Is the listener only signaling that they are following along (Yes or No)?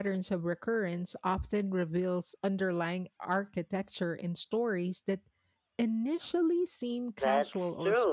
No